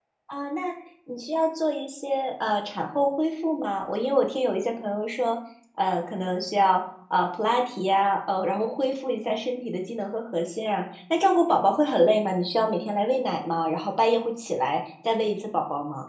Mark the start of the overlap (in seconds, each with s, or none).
none